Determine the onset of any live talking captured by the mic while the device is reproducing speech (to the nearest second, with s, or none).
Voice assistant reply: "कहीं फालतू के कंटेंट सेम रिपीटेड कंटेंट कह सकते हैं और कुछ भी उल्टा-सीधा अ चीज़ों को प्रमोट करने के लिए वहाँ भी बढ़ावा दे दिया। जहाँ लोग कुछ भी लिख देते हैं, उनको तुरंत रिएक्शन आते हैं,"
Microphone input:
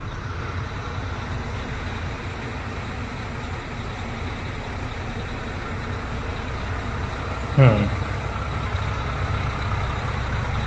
8 s